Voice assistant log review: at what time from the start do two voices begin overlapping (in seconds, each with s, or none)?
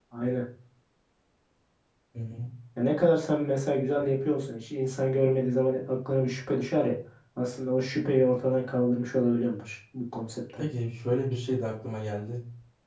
none